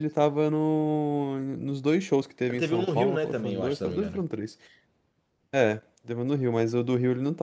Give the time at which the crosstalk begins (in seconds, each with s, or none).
2.5 s